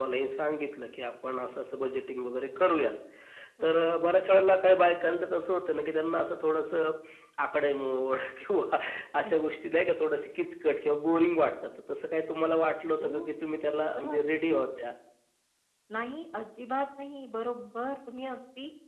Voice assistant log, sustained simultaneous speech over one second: none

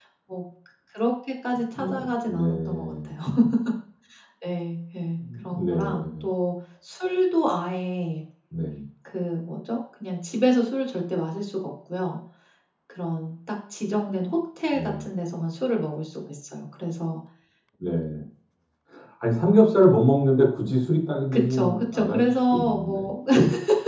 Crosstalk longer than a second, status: present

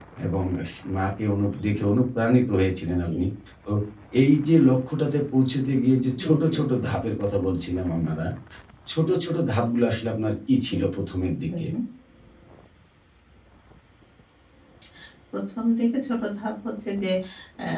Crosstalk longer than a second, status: none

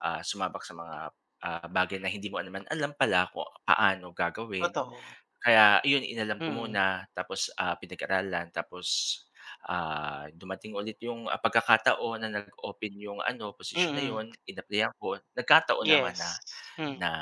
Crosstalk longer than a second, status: none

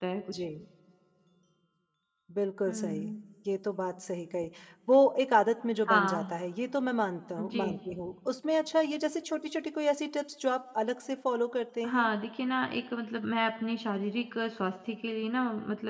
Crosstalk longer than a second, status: none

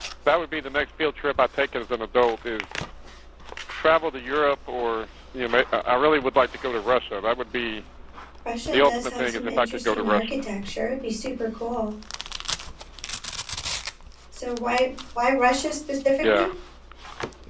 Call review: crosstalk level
present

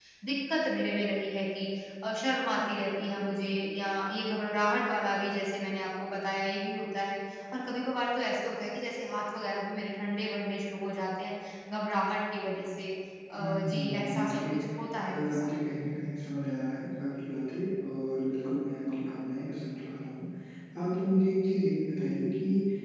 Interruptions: present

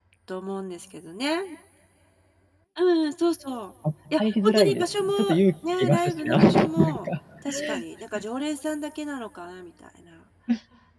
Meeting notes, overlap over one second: present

